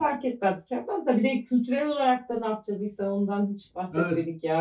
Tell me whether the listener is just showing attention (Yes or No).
No